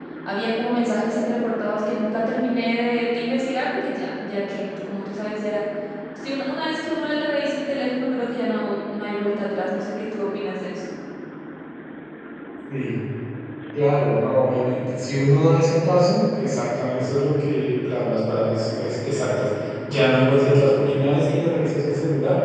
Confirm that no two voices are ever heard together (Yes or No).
Yes